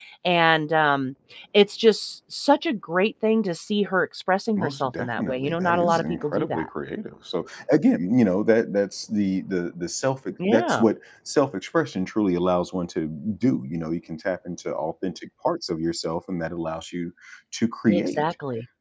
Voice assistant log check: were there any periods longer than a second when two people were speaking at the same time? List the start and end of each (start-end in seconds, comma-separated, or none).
4.6-6.7